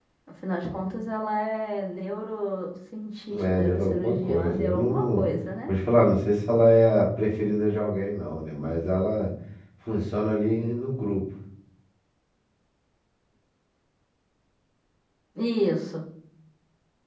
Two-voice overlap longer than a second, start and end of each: 3.4-5.2

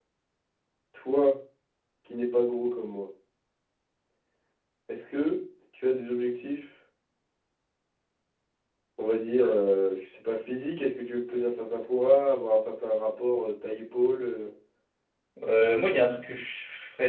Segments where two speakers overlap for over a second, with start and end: none

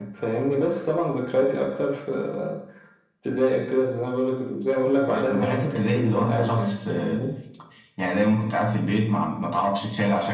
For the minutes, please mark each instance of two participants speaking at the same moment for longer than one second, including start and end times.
5.0-7.2

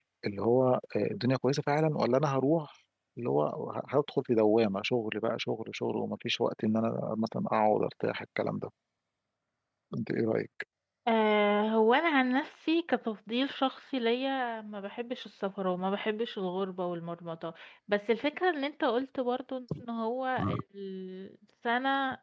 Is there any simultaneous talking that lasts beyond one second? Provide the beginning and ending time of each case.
none

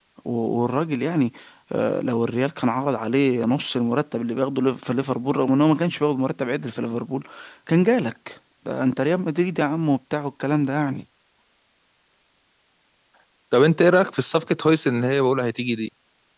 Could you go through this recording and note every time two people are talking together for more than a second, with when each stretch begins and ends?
none

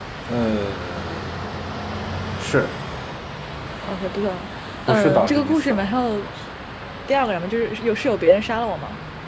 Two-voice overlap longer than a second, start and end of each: 4.9-6.2

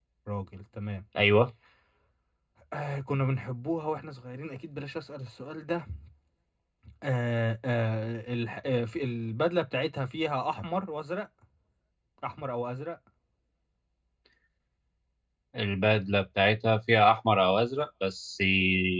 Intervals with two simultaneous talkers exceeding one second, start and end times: none

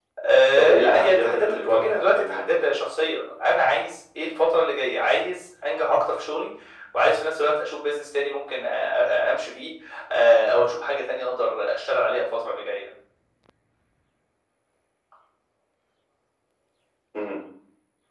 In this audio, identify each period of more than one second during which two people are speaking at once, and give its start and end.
0.6-2.5

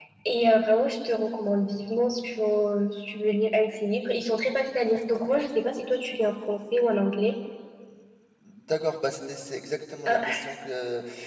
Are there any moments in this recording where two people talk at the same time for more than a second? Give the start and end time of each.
none

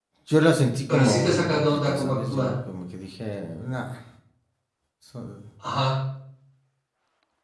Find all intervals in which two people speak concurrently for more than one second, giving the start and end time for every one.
0.9-2.6

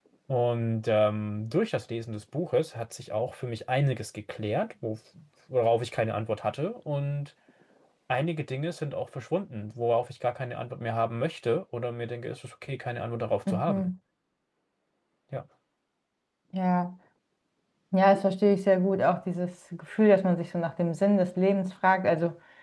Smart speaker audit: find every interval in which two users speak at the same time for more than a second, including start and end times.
none

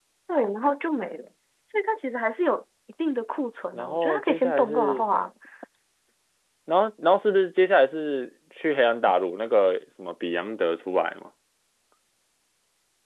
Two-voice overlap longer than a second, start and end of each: 3.7-5.0

